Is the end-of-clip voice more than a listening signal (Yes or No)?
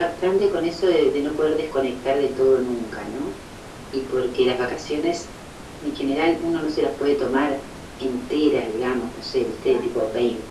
No